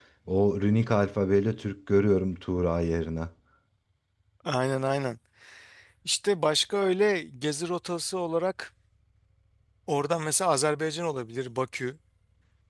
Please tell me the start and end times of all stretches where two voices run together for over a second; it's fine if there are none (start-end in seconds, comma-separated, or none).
none